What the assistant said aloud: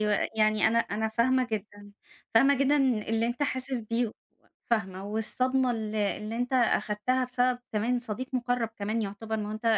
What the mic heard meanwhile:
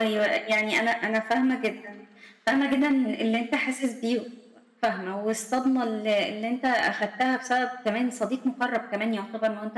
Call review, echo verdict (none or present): present